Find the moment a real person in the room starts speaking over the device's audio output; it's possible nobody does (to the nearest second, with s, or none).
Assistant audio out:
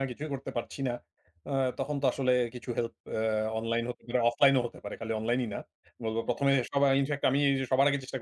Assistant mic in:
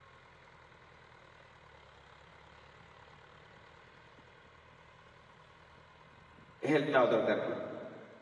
7 s